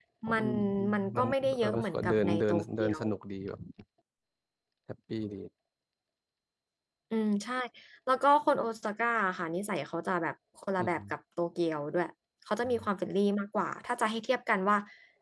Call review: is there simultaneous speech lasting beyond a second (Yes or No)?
Yes